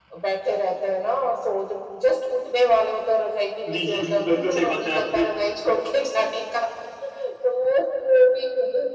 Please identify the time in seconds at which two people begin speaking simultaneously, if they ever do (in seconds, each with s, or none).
3.6 s